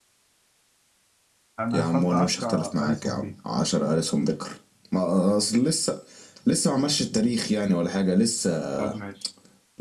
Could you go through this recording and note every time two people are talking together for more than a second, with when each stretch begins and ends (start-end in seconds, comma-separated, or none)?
1.7-3.3